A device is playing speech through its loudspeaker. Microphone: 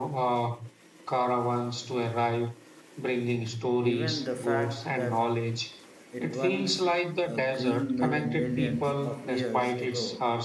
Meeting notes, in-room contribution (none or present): present